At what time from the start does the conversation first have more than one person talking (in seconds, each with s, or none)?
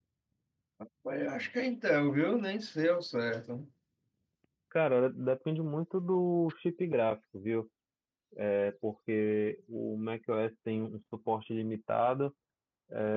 none